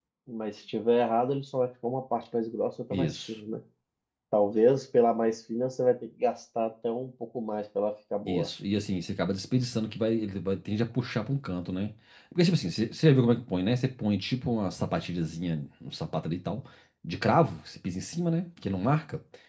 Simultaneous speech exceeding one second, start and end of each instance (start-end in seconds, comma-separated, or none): none